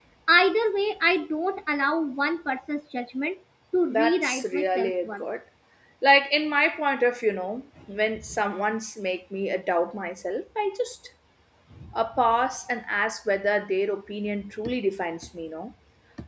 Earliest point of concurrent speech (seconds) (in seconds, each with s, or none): 3.9 s